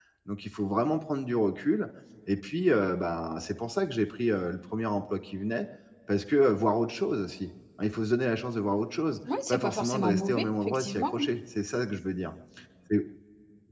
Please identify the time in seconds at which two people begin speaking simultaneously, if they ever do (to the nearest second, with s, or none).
9 s